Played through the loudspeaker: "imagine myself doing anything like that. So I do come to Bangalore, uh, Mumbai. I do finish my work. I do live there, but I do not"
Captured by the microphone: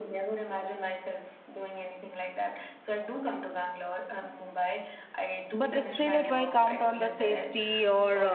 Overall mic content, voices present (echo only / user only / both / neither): both